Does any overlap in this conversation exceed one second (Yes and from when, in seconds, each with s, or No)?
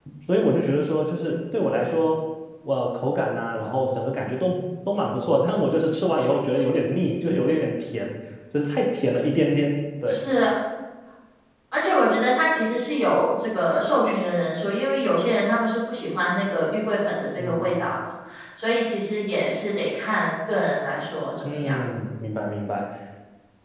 No